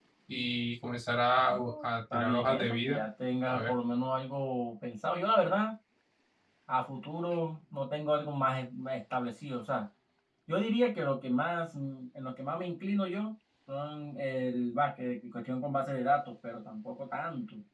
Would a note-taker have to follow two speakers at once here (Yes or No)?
Yes